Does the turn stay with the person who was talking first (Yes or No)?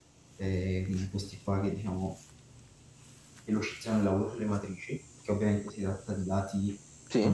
Yes